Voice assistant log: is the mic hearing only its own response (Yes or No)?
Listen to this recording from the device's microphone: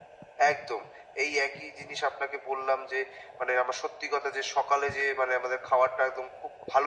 Yes